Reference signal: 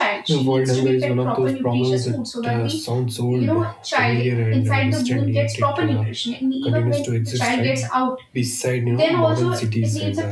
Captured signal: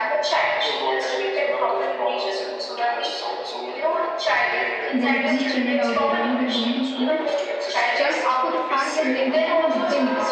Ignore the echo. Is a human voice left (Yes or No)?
Yes